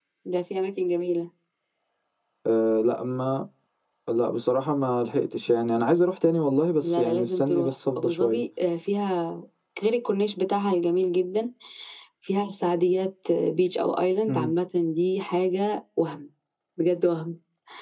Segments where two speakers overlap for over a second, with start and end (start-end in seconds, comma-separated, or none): 6.8-8.4